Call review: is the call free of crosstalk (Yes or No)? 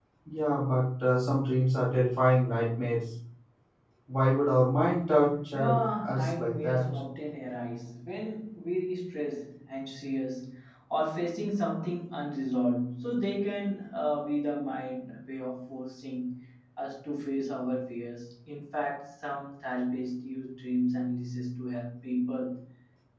No